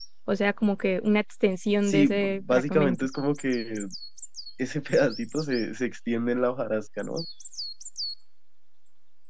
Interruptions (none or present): present